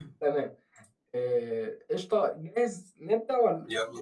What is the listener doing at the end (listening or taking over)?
listening